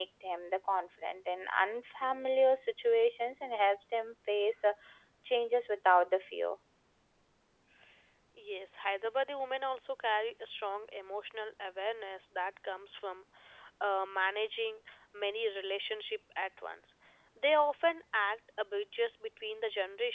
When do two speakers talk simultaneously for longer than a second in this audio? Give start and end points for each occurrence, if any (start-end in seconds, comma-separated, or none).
none